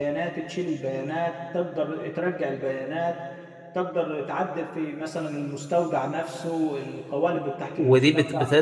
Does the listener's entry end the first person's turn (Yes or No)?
Yes